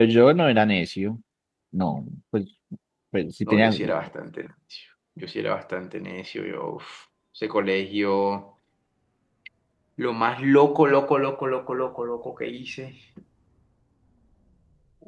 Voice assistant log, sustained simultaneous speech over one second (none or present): none